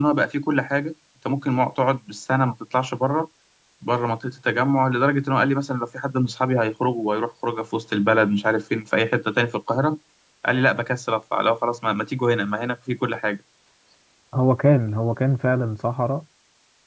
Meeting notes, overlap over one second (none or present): none